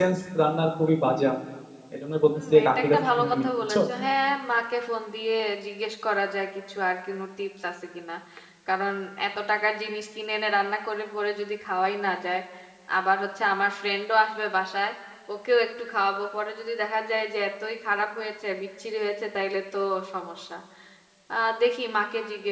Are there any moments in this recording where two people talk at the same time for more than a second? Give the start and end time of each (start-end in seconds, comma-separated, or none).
2.3-3.8